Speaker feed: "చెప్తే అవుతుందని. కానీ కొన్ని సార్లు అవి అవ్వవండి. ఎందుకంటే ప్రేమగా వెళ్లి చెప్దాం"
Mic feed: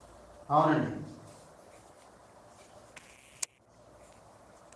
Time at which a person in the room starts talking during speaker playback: 0.5 s

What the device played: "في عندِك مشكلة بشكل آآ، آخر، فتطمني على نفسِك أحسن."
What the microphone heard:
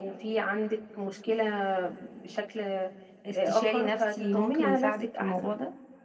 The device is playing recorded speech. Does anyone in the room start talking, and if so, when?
3.3 s

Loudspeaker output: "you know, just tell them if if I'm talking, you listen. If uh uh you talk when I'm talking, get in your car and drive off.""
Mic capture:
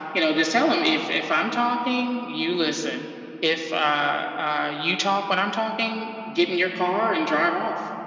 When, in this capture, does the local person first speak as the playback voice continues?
none

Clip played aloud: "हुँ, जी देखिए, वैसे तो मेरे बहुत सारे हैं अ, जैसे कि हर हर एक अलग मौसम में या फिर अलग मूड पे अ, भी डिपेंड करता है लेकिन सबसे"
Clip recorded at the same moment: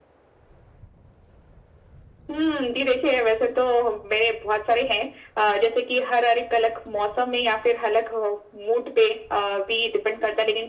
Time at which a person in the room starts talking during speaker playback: none

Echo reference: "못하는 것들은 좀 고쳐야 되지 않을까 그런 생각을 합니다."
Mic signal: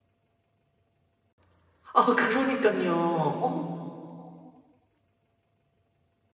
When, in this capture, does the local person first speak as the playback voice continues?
2.0 s

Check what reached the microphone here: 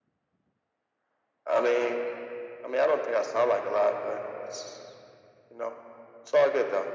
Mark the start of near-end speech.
none

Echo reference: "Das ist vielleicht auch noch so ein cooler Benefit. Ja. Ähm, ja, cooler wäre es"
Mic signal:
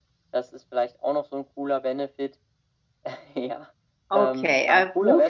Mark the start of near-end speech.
4.1 s

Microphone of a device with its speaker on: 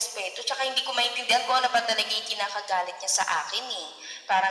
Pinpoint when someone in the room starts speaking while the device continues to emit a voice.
none

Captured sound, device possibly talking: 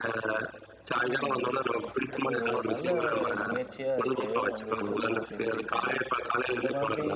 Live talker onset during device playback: 1.0 s

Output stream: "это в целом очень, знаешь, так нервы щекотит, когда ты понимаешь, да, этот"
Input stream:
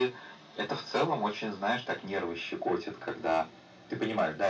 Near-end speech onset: none

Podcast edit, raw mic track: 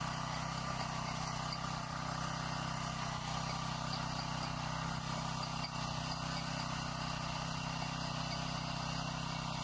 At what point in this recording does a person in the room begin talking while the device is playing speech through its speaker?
none

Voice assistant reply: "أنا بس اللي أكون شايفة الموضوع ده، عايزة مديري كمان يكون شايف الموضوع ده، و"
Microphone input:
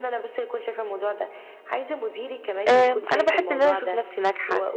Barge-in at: 2.7 s

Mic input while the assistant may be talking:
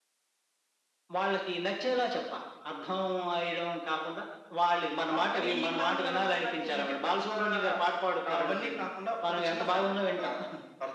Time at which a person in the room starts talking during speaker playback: none

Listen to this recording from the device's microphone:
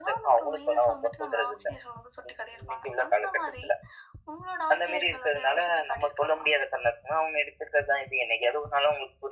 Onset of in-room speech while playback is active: none

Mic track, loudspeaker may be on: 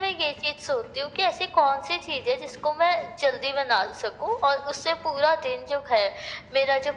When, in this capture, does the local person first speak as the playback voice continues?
none

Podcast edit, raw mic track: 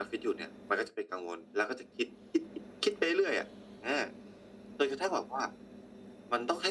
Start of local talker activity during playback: none

